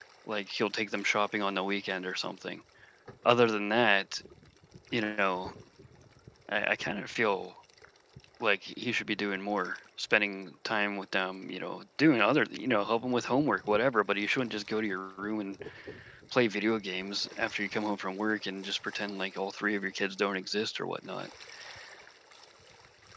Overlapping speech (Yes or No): No